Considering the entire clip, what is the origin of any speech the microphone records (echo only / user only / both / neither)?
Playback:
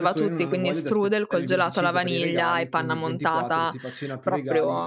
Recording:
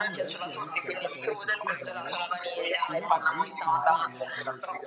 both